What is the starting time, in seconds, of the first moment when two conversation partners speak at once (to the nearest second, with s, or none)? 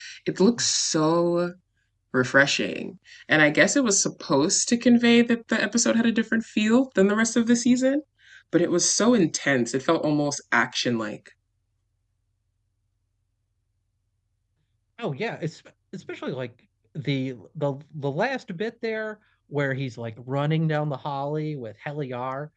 none